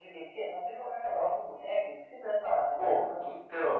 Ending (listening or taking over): taking over